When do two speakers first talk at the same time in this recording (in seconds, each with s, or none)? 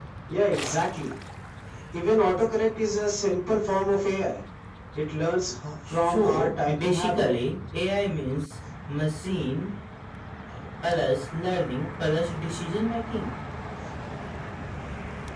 5.9 s